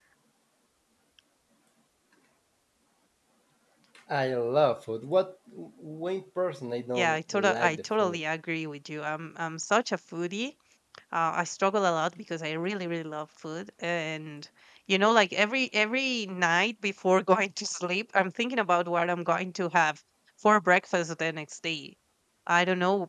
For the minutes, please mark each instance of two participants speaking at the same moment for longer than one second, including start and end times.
7.0-8.2

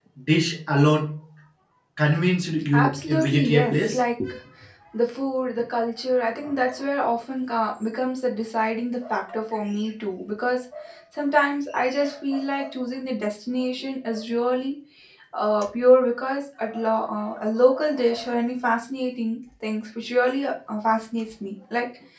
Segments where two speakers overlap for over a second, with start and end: 2.7-4.0

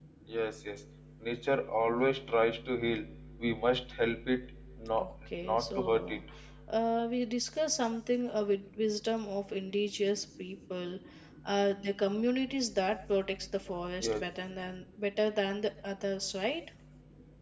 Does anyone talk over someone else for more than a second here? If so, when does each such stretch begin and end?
5.0-6.2

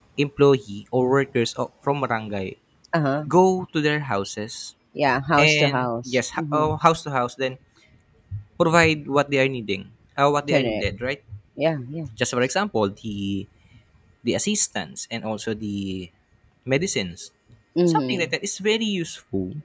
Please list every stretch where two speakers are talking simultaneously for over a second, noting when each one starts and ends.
5.4-6.7

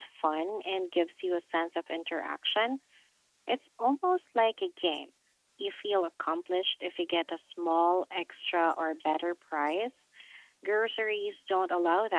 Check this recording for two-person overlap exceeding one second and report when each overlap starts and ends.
none

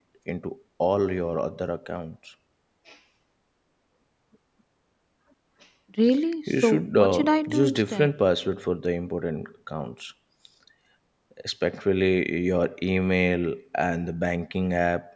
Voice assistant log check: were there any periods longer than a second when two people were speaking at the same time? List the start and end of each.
6.5-8.1

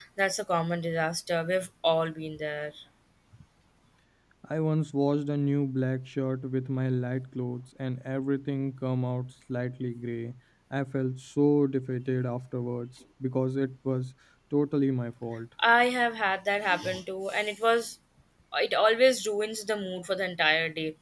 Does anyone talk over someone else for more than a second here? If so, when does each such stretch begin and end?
none

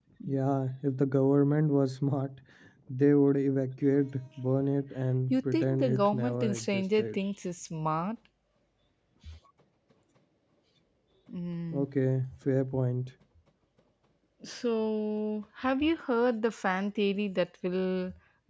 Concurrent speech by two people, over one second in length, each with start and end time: 5.3-7.2

